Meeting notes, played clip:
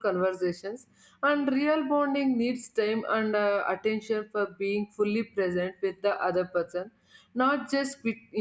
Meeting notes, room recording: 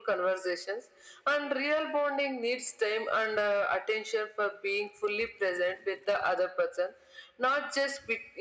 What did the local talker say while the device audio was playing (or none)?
none